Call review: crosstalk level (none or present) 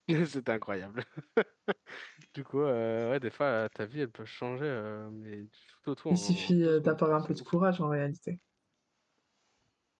present